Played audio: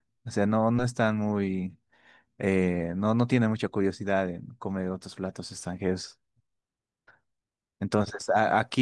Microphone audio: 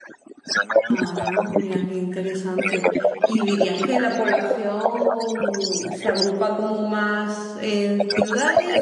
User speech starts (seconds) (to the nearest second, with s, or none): 1 s